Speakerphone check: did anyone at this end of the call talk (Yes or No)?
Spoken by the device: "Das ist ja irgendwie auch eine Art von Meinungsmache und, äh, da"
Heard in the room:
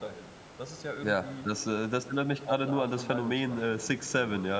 Yes